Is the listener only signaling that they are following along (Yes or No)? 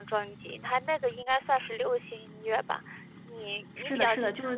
No